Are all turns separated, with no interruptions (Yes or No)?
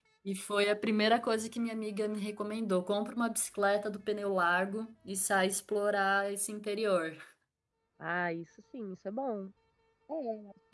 Yes